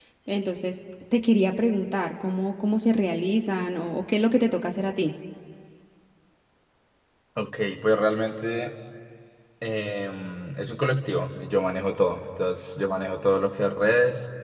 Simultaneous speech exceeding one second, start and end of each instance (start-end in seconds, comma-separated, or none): none